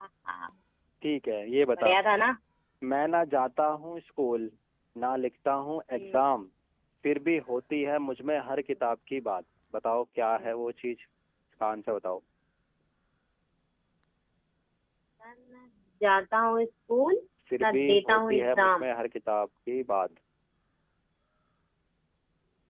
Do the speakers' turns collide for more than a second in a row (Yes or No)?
Yes